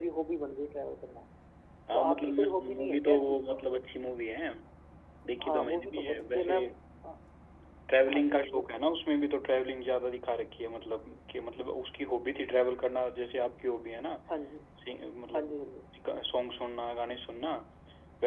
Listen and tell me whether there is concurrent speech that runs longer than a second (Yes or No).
Yes